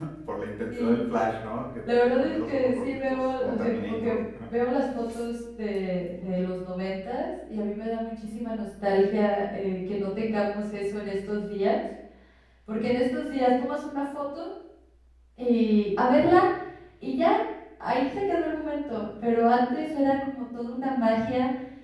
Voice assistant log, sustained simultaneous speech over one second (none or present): present